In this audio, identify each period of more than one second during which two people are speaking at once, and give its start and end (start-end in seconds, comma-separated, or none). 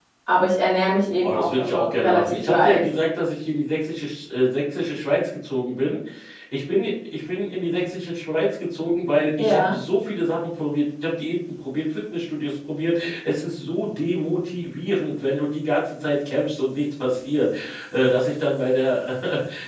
1.3-2.8